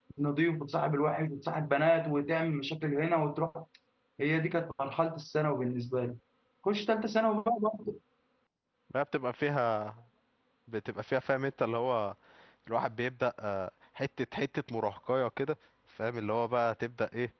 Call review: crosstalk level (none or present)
none